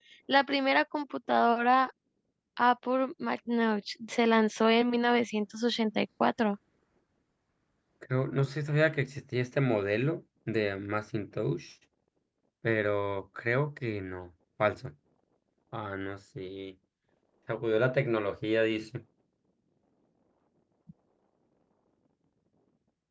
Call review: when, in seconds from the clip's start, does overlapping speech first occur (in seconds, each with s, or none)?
none